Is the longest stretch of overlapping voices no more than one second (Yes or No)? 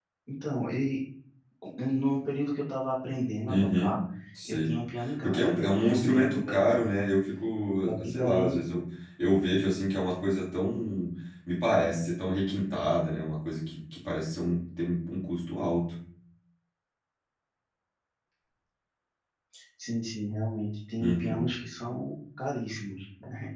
No